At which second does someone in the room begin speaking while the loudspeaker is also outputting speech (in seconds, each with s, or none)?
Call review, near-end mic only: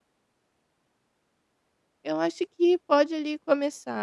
2.0 s